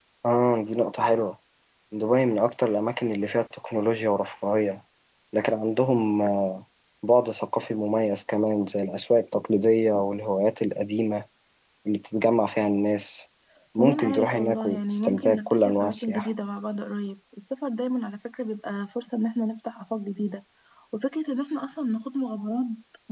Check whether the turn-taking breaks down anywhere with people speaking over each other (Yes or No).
Yes